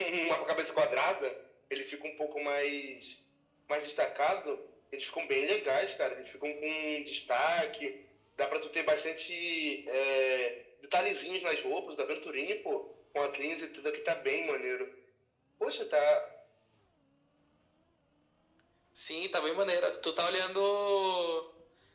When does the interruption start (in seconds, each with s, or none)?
none